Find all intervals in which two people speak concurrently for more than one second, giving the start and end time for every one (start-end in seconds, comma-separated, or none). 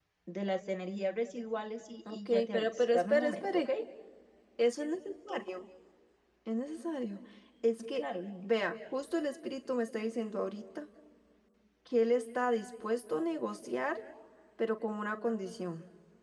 2.1-3.7